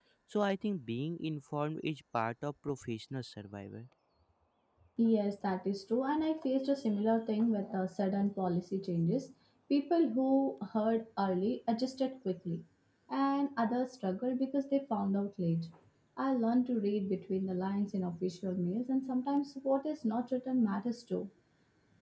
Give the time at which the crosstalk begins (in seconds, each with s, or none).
none